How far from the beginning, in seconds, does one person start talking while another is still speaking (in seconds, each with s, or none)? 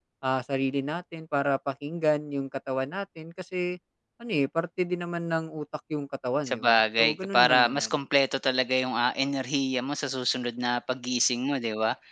6.5 s